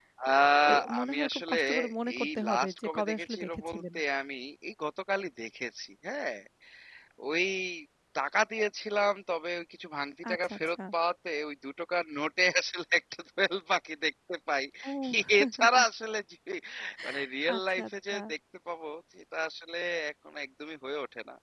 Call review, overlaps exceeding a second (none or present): present